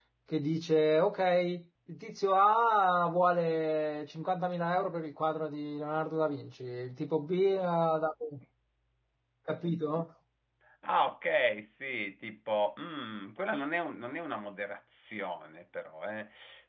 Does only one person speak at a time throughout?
Yes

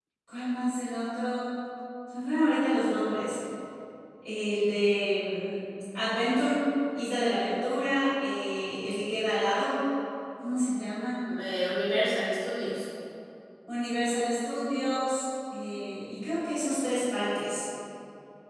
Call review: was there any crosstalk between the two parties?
No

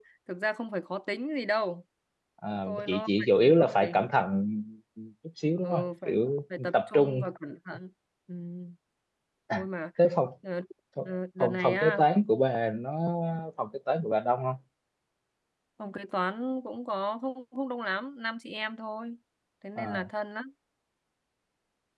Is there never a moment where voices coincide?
No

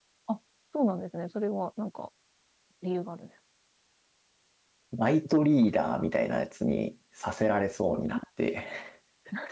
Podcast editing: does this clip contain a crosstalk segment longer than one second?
No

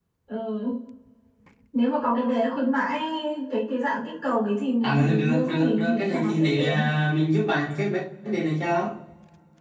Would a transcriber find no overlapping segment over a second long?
No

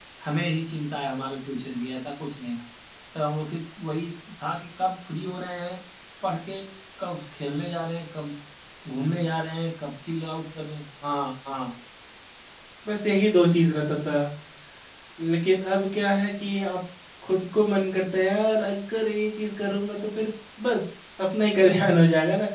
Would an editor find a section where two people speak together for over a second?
No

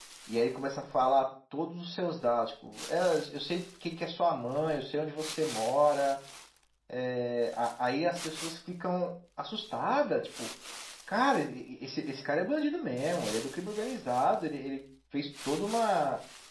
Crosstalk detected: No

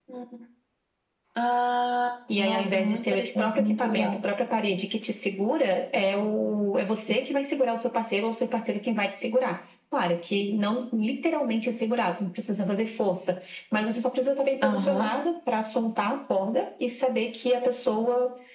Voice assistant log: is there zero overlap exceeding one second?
No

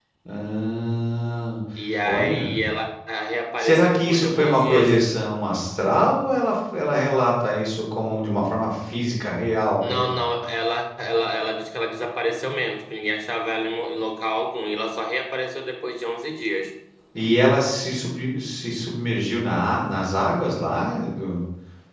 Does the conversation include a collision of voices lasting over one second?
Yes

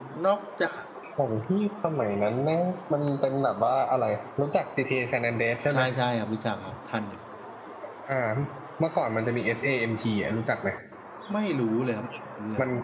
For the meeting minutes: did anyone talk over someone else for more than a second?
No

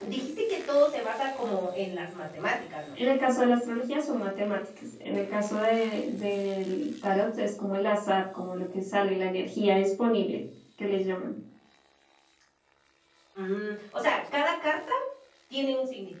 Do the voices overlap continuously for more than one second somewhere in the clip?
No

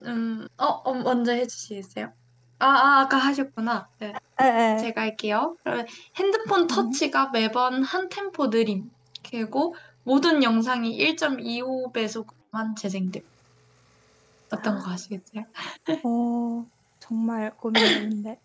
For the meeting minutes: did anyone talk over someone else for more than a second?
No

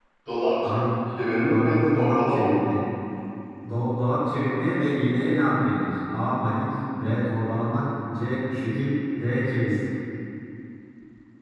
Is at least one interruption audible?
Yes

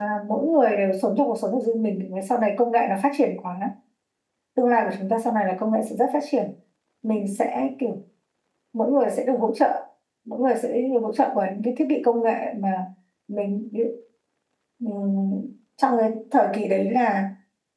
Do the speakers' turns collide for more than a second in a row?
No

